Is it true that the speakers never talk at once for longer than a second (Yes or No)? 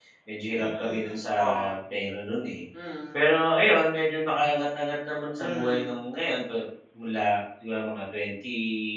Yes